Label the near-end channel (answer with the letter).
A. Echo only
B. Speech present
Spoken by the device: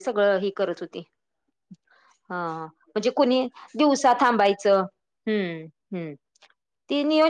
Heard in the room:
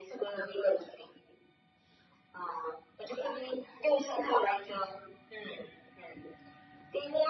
A